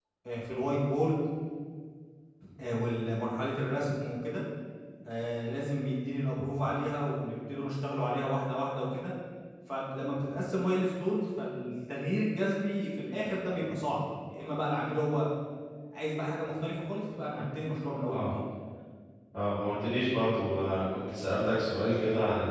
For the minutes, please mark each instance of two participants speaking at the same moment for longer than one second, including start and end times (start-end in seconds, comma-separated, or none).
none